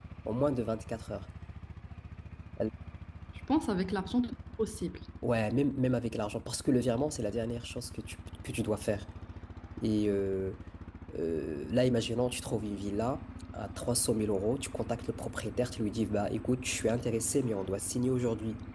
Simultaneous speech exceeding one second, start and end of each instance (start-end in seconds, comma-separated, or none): none